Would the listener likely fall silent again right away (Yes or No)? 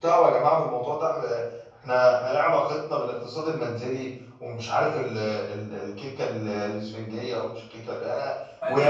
Yes